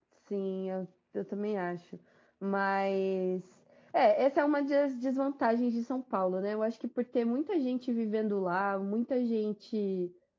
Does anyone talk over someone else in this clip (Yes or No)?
No